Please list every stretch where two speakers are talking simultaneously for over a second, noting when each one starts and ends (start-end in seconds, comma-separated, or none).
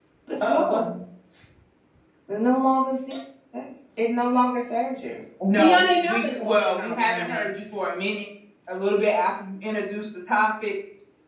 5.5-7.4